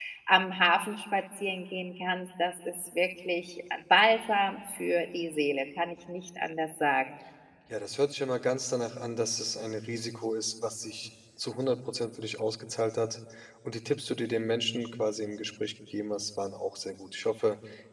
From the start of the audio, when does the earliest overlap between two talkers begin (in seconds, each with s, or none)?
none